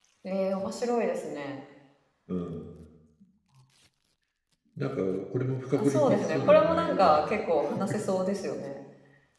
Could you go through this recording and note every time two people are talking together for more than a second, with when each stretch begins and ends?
5.8-7.3

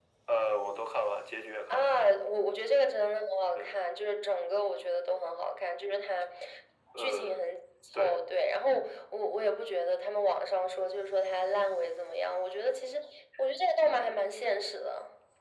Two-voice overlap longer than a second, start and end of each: none

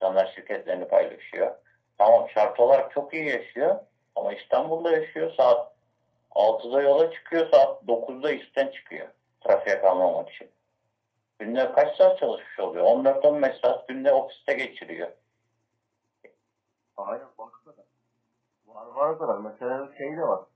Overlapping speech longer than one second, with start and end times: none

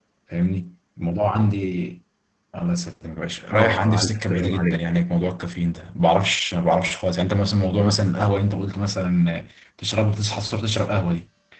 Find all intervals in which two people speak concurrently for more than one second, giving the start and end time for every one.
3.5-4.7

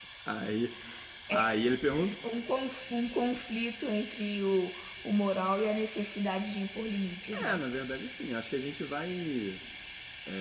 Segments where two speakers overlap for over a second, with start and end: none

